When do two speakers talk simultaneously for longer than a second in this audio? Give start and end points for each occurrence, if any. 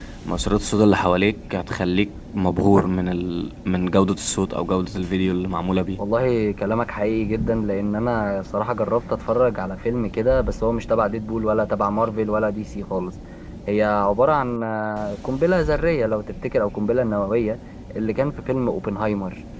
none

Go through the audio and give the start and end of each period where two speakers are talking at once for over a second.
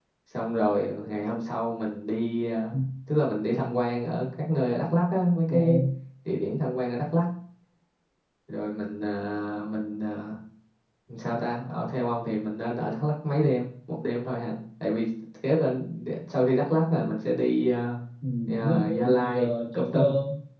18.6-20.0

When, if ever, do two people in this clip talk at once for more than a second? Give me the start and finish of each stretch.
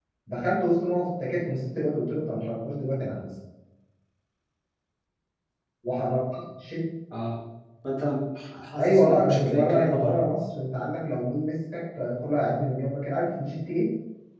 8.8-10.2

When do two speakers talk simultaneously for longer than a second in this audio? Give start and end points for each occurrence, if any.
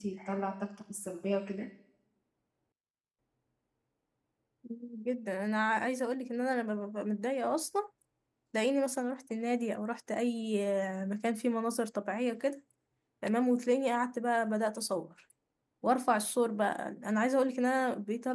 none

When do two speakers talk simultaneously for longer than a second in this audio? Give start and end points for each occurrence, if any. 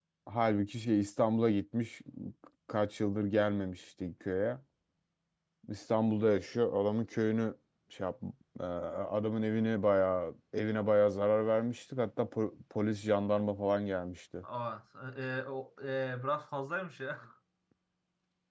none

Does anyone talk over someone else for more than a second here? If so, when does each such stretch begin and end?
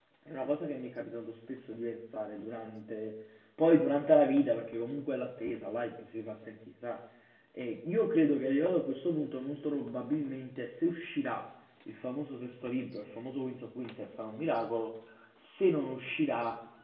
none

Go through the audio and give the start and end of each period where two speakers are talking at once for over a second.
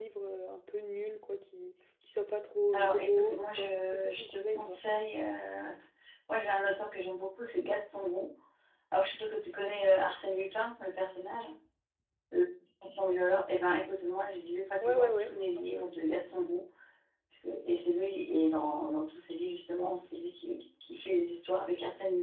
2.7-4.8

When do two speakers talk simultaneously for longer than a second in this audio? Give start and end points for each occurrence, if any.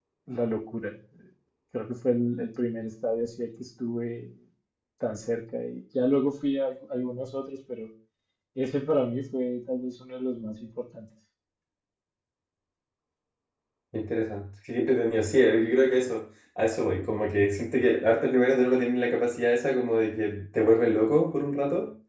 none

